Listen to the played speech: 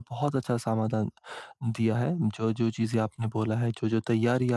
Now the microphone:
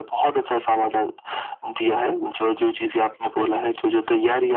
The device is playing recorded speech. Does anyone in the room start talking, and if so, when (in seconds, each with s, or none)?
none